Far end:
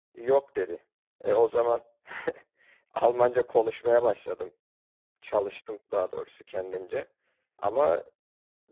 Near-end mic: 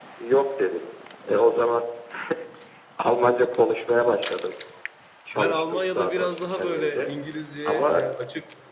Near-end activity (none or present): present